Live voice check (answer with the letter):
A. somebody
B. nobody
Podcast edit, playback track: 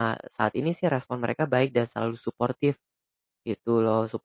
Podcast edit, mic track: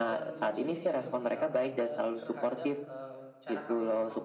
A